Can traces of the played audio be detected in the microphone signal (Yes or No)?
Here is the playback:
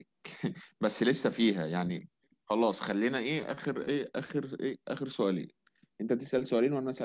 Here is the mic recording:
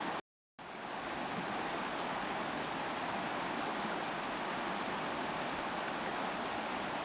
No